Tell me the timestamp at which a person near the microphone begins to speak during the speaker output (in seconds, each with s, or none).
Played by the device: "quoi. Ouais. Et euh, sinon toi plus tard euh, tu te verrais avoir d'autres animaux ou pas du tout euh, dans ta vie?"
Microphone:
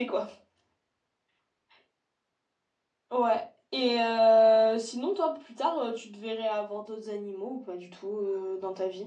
none